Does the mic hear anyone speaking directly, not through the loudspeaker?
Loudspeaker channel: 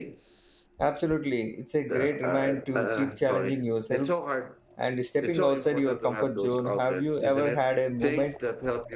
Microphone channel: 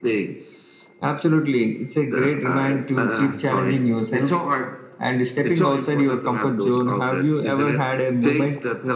No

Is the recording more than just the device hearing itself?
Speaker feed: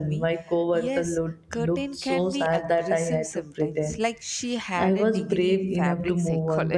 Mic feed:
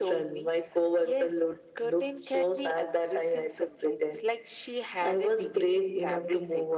No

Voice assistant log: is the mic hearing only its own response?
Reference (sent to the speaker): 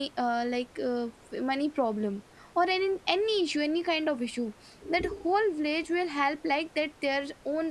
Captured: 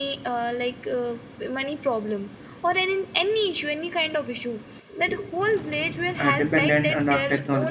No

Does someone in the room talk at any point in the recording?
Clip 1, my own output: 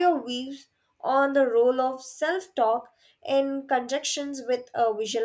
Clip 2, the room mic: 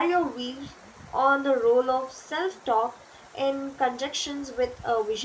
No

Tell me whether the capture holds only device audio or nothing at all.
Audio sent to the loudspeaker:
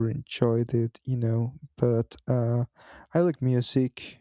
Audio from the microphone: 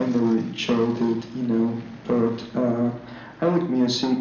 Yes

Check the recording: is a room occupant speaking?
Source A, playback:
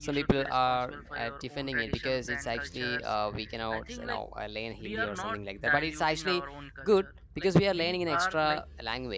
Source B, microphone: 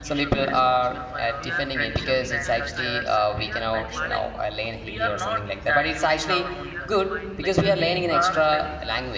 Yes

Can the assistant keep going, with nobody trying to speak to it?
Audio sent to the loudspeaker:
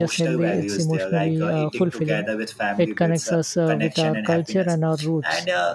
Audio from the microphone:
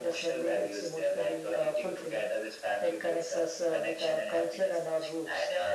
Yes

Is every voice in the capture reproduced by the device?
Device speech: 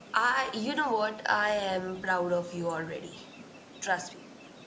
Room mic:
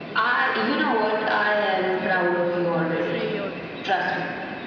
No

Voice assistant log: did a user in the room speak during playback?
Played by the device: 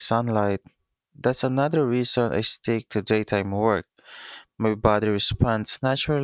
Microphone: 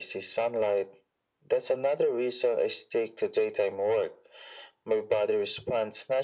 No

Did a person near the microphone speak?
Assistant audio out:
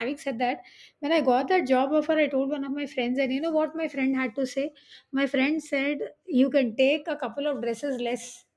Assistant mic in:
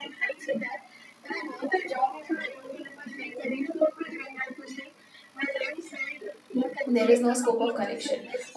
Yes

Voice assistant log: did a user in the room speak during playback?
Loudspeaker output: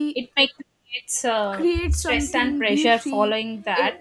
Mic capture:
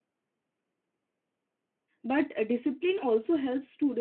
Yes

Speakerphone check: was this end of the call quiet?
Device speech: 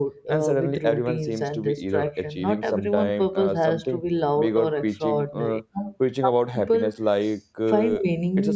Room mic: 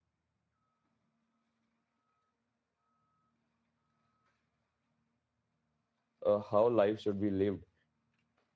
No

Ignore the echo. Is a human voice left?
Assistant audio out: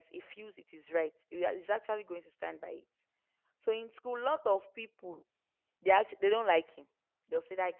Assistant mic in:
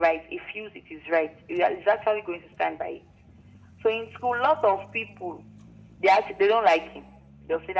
No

